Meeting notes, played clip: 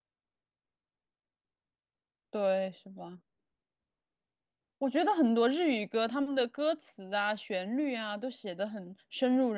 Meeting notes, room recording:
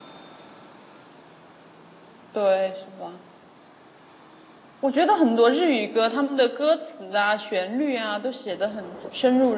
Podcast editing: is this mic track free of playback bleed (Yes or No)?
No